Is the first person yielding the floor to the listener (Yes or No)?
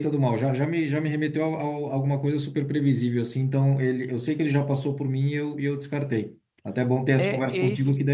Yes